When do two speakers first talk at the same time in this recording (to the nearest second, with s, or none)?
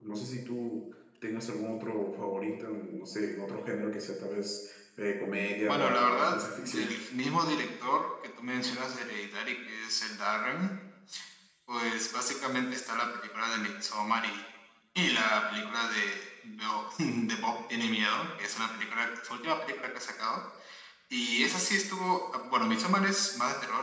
6 s